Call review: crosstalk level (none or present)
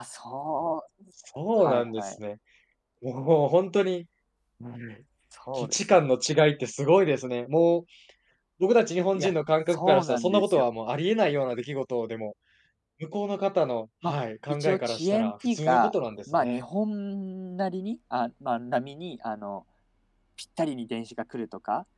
present